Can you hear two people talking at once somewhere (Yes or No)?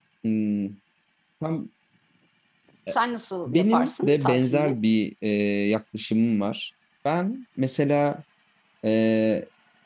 Yes